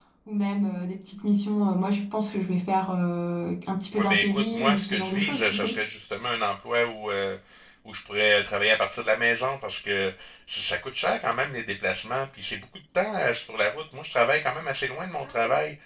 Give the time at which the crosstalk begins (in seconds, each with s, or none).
3.9 s